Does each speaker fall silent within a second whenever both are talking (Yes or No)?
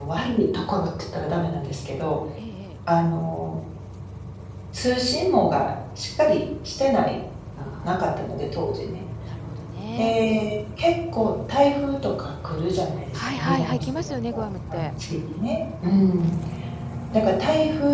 No